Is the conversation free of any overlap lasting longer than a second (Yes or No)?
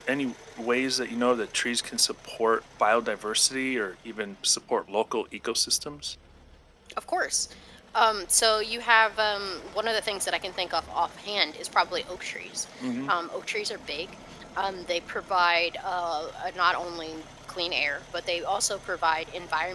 Yes